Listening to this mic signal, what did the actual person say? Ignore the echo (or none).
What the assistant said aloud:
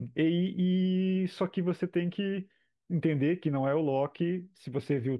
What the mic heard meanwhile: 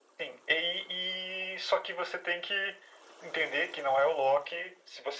none